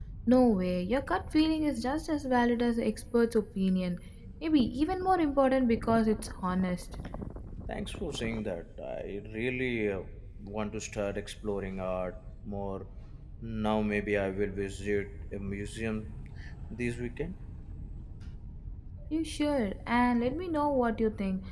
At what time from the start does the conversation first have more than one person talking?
none

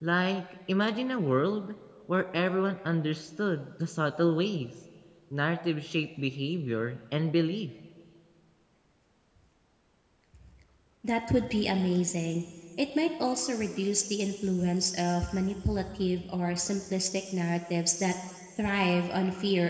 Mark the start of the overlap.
none

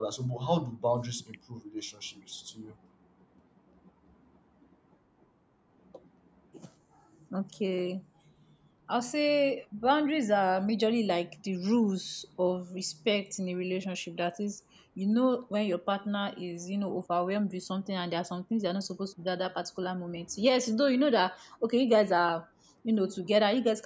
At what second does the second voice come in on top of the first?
none

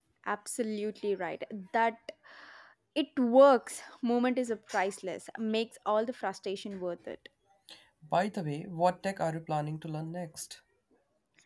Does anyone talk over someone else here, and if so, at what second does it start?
none

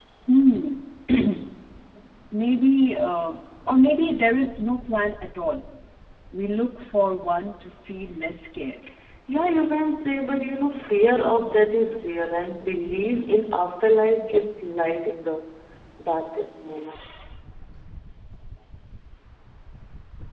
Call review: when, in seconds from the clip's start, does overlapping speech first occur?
none

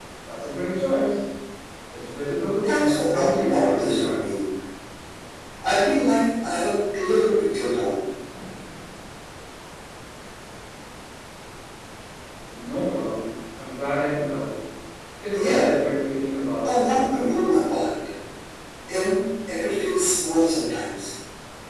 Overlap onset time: 3 s

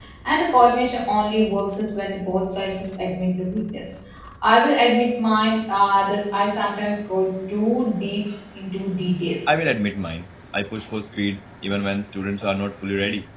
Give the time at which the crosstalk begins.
none

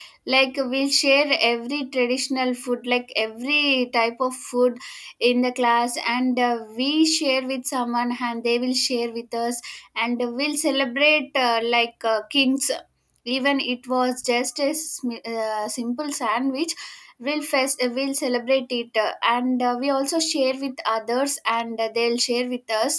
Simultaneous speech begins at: none

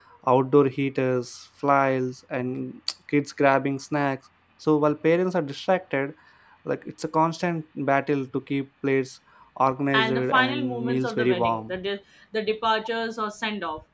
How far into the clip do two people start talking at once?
10 s

